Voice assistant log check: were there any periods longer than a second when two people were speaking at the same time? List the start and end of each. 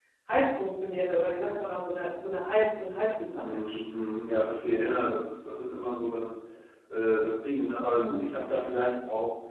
none

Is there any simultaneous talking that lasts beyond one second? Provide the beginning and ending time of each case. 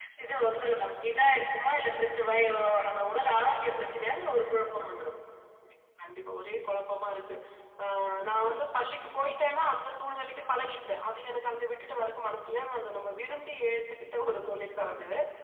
none

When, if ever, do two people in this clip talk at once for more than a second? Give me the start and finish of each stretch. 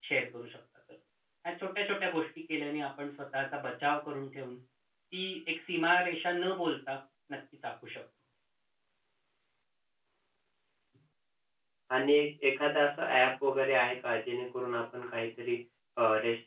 none

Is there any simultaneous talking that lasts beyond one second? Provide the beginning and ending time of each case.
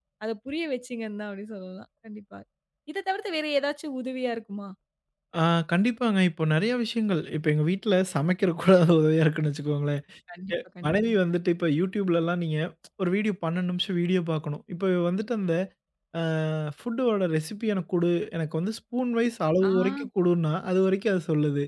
none

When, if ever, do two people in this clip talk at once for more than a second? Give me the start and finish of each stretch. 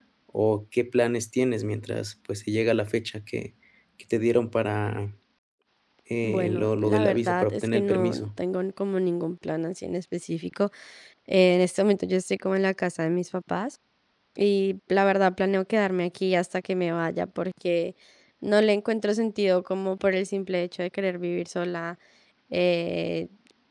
6.2-8.3

